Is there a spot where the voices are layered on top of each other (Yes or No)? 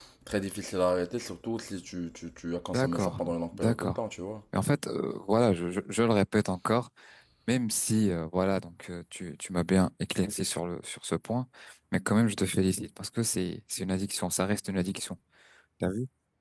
Yes